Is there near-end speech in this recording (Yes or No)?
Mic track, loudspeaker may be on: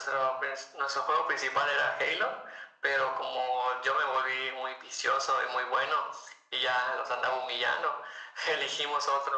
No